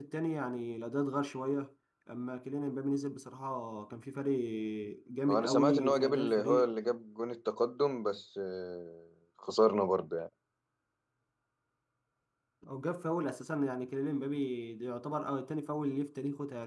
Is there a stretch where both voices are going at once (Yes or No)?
Yes